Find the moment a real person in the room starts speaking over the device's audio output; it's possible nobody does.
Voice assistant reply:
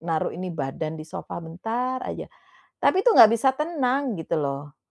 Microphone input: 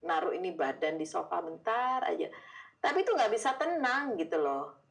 none

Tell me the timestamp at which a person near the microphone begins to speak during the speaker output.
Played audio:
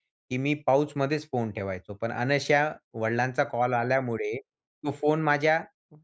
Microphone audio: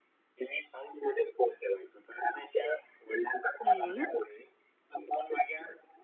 3.6 s

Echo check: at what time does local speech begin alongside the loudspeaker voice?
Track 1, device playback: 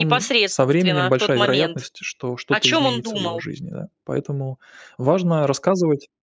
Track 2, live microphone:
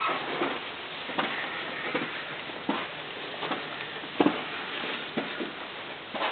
none

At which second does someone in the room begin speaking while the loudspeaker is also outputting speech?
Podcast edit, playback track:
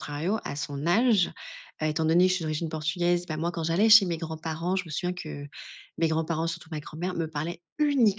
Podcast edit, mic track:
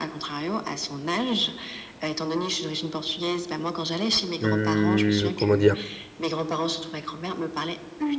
4.4 s

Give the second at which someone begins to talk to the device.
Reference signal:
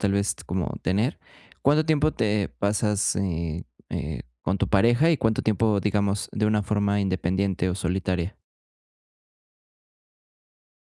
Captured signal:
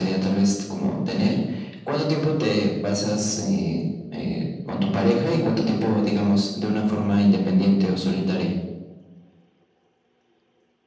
none

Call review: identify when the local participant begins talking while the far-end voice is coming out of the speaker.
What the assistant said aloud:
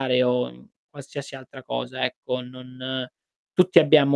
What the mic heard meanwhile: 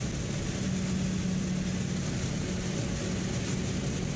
none

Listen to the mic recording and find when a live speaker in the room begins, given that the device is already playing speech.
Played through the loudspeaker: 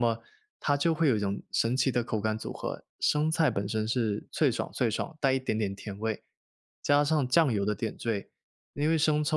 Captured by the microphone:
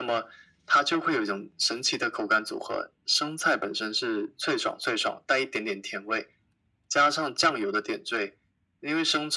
none

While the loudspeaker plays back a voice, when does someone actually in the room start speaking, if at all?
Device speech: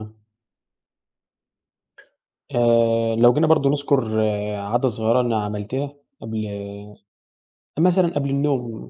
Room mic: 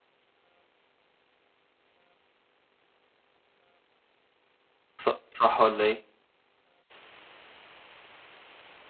5.0 s

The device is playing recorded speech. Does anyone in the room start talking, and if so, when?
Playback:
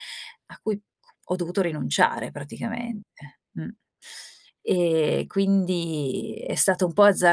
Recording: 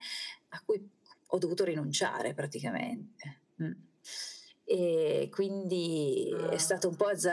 6.3 s

